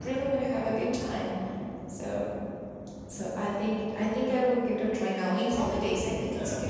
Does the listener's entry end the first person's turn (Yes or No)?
No